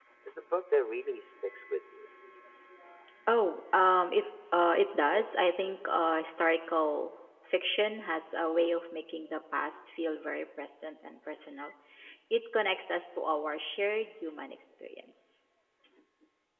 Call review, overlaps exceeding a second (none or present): none